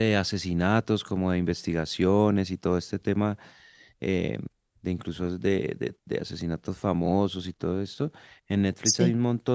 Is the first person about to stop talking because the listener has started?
No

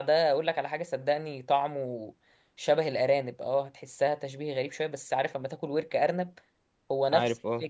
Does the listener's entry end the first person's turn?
No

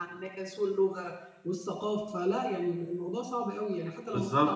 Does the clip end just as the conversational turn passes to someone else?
Yes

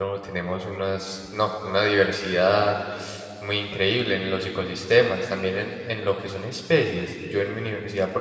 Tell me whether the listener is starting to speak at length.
No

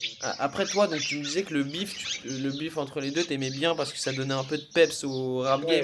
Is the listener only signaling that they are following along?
No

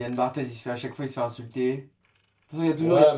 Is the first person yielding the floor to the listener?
Yes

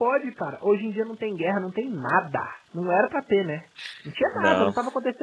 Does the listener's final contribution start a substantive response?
No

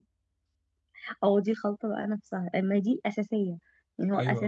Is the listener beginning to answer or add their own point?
No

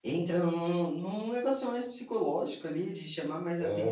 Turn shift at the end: No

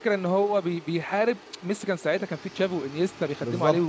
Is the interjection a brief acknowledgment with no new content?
No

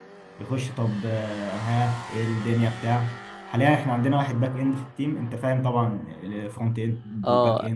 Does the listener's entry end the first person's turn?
Yes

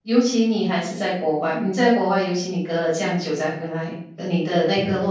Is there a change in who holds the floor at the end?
No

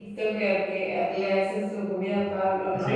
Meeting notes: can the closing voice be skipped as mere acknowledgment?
No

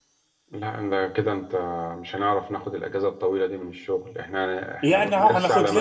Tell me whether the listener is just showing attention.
No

